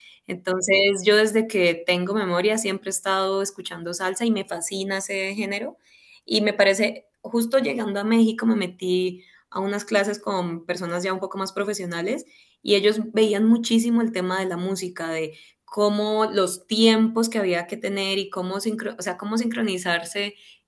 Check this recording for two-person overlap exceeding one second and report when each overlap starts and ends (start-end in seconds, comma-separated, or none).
none